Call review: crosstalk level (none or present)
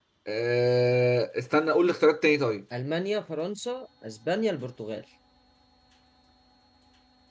none